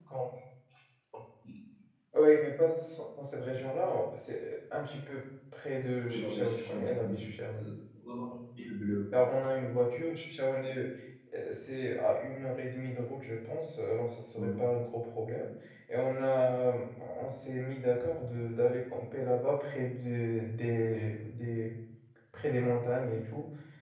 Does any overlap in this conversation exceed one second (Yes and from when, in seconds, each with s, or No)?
Yes, from 6.1 s